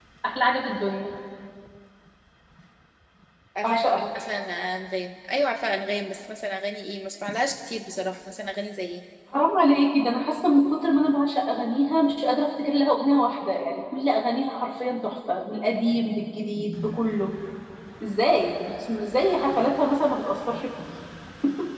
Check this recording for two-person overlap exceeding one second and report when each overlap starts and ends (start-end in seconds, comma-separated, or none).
none